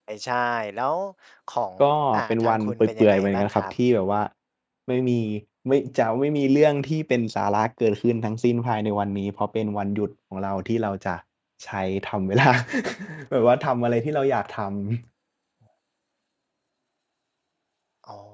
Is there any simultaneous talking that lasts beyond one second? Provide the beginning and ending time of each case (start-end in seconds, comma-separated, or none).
2.1-3.6